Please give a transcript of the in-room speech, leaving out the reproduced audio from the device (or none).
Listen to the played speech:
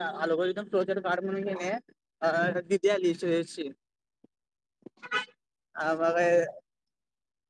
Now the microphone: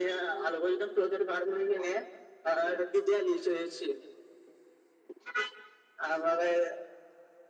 none